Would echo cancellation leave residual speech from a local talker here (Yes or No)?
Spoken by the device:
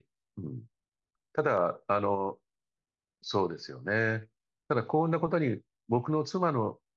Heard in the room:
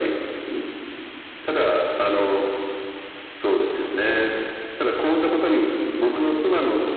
No